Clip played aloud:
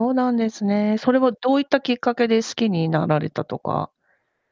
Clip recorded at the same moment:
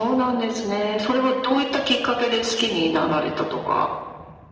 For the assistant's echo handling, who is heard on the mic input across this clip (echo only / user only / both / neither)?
echo only